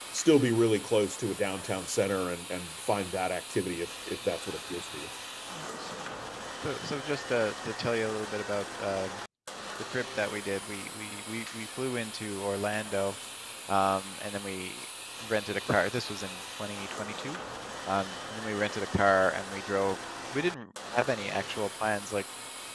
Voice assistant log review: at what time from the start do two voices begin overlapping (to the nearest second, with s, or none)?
none